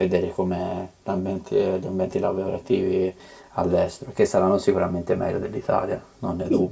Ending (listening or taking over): taking over